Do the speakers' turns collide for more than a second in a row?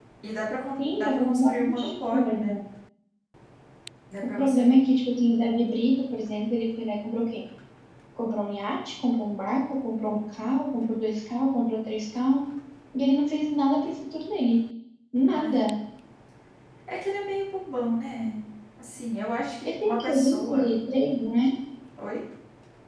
Yes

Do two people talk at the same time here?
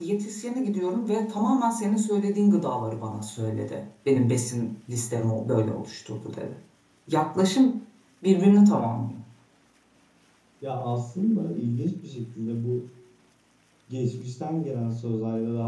No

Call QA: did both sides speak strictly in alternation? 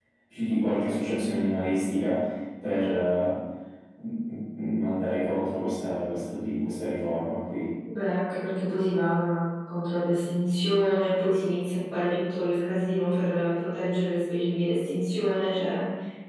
Yes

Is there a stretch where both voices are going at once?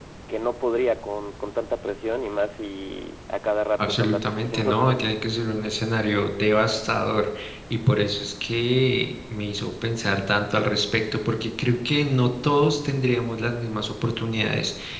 Yes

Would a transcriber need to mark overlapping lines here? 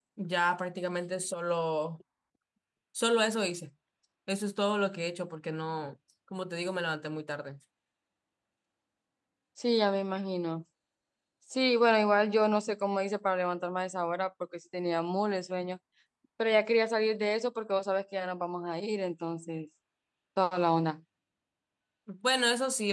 No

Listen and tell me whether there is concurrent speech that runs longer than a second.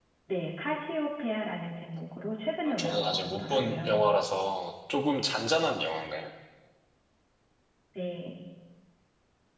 Yes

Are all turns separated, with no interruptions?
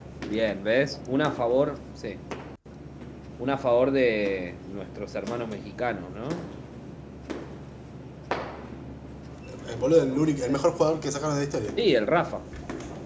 Yes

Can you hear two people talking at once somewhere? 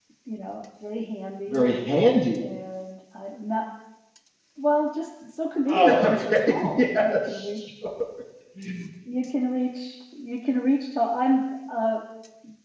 Yes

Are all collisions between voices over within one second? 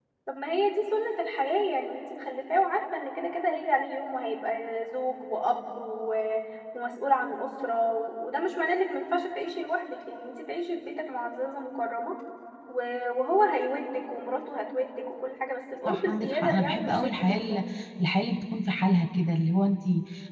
No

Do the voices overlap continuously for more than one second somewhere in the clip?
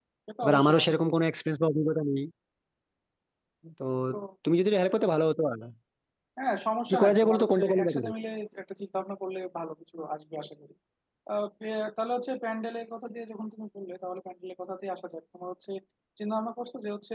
Yes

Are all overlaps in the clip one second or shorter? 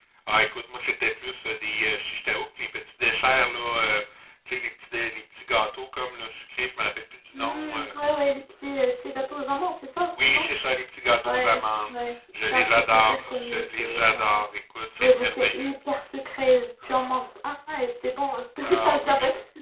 No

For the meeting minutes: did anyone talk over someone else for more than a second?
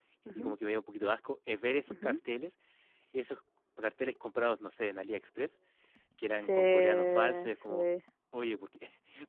Yes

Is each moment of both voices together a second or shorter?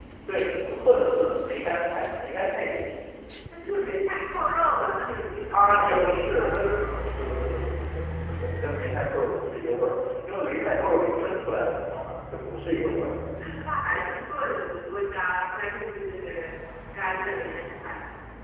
No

